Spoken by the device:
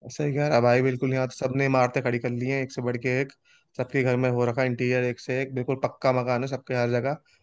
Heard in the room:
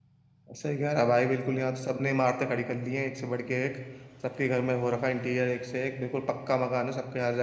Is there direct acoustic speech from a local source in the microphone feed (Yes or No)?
No